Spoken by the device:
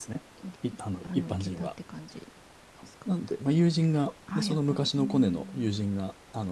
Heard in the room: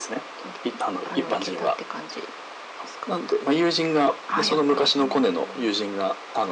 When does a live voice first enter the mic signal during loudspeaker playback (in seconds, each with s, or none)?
none